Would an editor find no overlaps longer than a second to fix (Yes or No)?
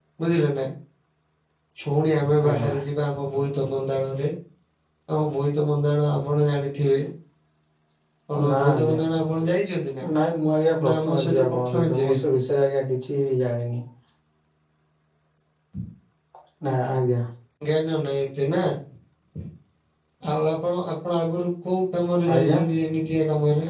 No